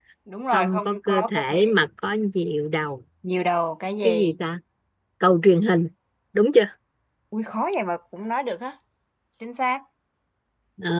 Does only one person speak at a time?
No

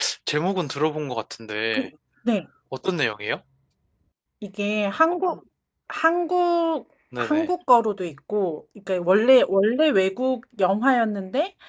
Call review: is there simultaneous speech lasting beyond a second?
No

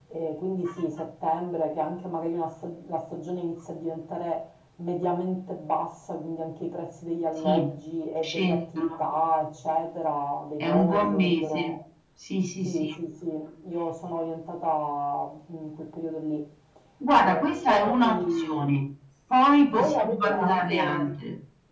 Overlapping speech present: Yes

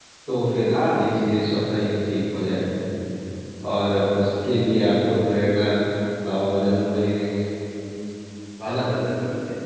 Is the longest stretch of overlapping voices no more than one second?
Yes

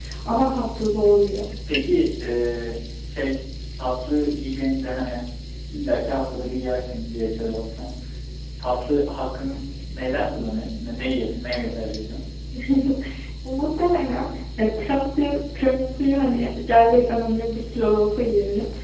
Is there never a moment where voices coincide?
Yes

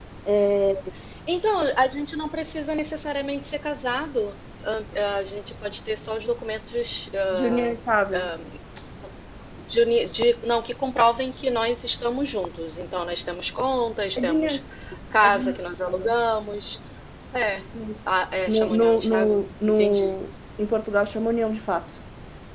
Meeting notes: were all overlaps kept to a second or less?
No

